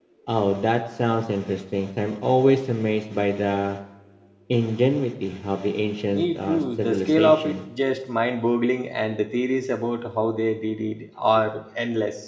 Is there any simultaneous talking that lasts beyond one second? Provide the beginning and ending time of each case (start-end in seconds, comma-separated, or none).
6.1-7.6